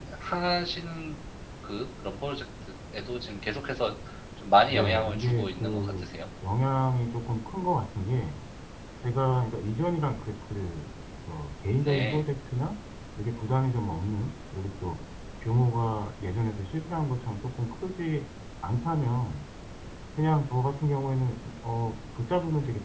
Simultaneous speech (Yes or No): Yes